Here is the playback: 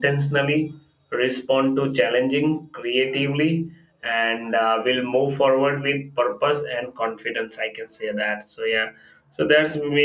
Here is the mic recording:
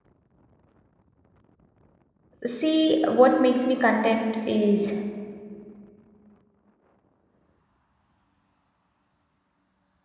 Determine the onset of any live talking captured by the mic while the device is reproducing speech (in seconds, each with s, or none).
2.5 s